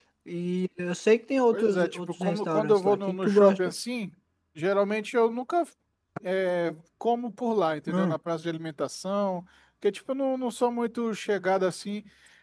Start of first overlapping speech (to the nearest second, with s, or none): 2 s